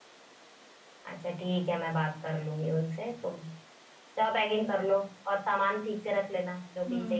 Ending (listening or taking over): taking over